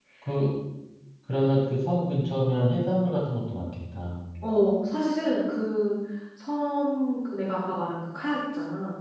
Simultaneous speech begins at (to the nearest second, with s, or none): none